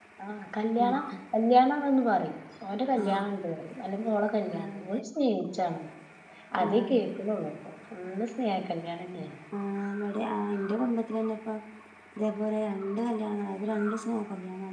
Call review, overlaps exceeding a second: none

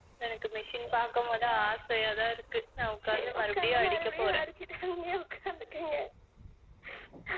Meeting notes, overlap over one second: present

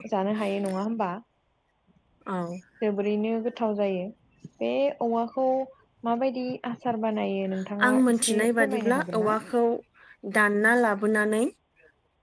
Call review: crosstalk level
present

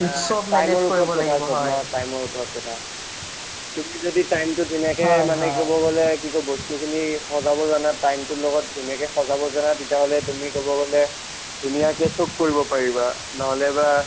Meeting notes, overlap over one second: present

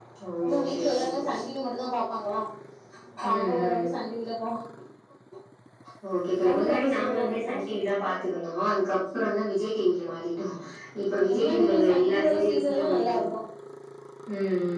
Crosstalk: present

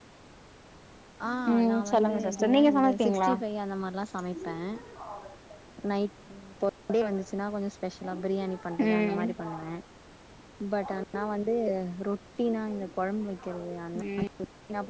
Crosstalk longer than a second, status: present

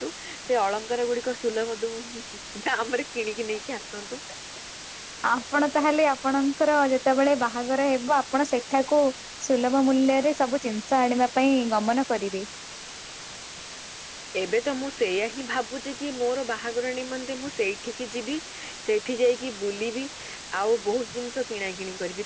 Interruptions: none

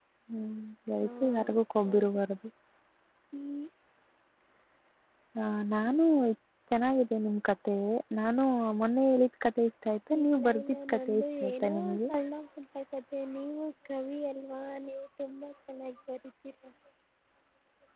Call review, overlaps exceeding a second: present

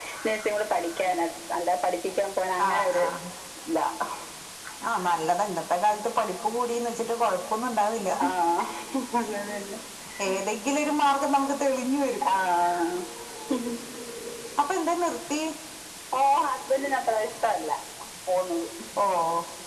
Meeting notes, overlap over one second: none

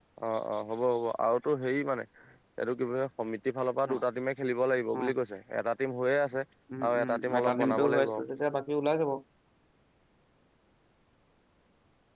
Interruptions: present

